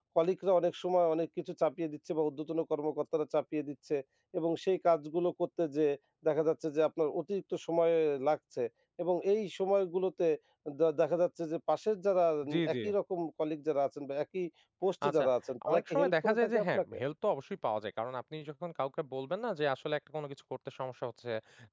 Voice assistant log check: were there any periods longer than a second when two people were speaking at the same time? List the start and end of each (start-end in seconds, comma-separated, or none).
15.7-17.0